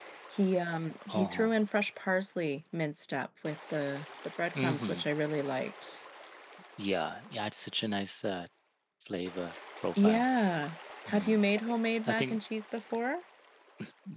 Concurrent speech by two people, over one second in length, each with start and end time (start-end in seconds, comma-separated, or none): none